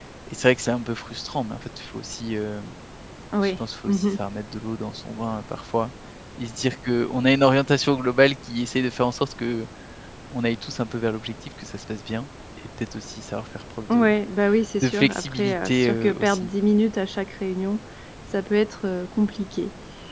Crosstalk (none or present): present